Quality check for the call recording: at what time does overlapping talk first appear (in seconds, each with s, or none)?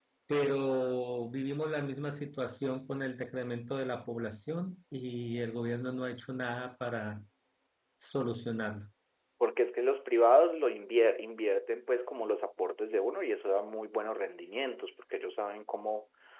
none